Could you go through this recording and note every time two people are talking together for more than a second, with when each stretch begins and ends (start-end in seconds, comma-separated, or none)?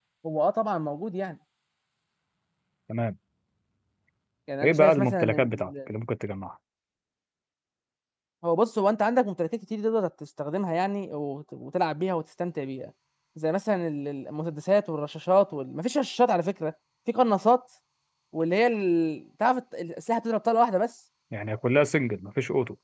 4.6-5.9